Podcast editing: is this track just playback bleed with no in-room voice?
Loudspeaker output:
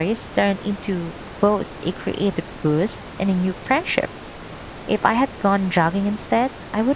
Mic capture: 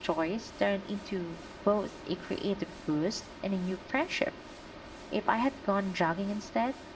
Yes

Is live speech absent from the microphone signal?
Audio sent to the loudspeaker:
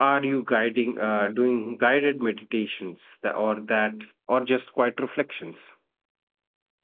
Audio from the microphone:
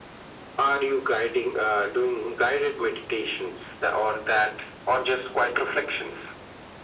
Yes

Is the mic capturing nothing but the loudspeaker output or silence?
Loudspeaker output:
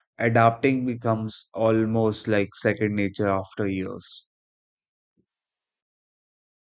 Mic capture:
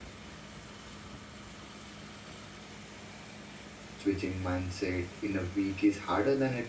No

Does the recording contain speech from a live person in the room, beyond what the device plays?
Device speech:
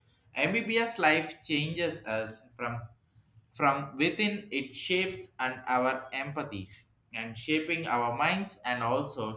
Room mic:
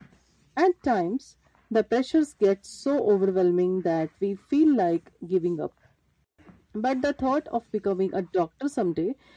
Yes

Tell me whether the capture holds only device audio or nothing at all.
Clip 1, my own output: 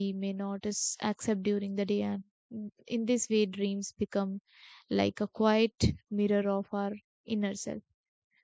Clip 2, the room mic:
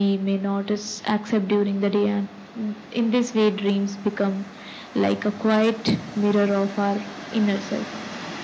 Yes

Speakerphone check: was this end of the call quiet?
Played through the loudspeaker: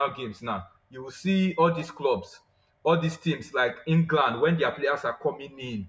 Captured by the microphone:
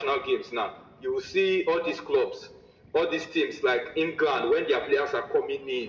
Yes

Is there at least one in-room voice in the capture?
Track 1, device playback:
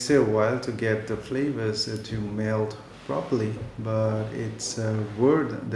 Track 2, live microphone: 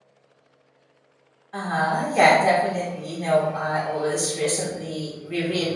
Yes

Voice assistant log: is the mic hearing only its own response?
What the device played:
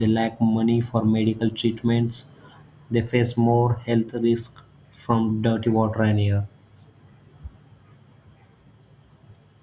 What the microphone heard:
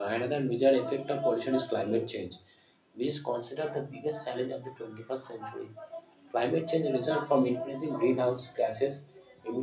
No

